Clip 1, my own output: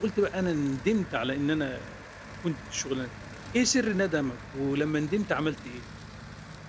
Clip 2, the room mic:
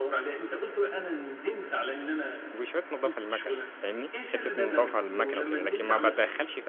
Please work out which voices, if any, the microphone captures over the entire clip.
both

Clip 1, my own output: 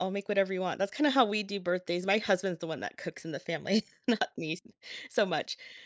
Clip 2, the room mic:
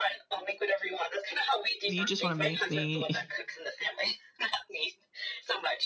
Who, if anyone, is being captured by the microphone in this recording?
both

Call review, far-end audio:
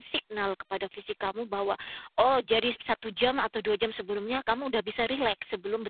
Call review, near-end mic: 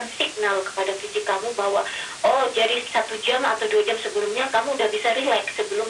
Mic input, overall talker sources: echo only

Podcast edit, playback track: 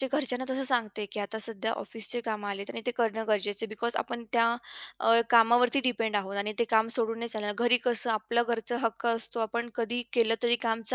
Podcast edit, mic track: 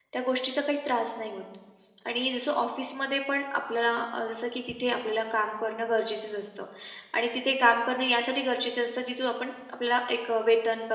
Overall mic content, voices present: user only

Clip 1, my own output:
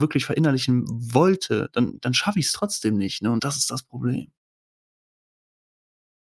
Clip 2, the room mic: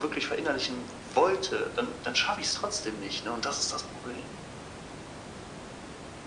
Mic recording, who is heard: echo only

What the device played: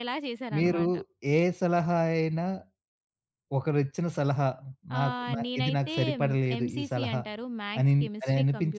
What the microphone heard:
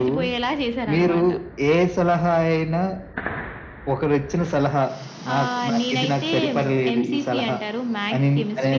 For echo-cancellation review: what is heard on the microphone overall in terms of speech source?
echo only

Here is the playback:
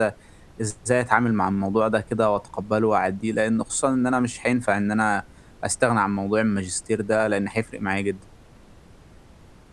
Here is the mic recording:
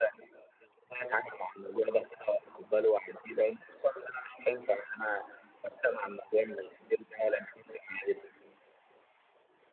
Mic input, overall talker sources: echo only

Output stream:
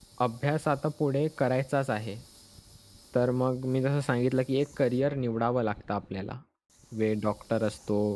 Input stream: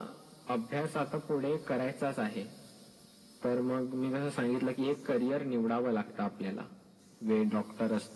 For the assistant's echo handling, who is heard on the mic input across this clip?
echo only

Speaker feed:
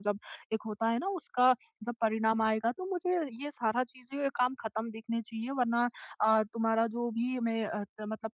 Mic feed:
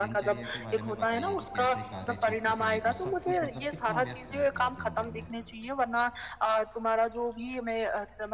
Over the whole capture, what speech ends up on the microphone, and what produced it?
both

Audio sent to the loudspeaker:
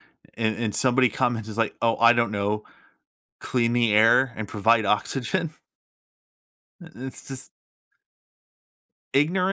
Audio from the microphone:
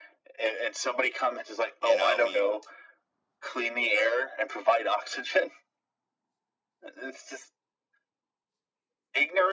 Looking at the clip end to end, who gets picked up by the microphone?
both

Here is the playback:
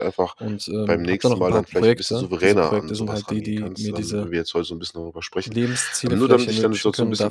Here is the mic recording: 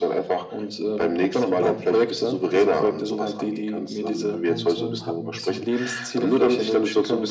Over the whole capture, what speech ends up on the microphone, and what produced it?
both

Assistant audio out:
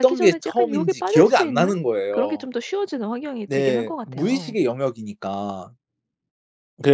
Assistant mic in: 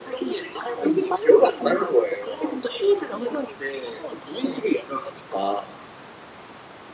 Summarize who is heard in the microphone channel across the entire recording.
echo only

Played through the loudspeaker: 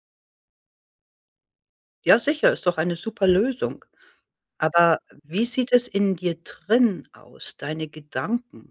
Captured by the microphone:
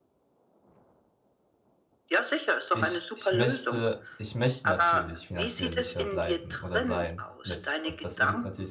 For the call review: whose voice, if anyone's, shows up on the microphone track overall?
both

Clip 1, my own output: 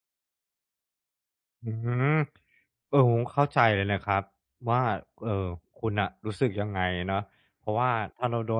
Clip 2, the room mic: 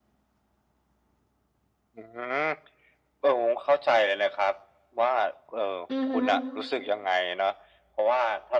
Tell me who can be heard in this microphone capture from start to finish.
both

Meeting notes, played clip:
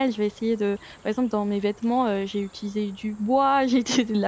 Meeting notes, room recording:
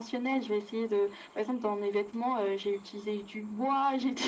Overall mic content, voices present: echo only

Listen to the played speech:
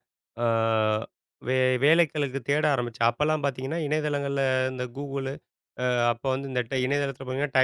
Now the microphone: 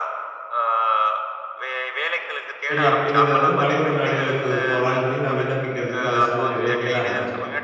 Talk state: both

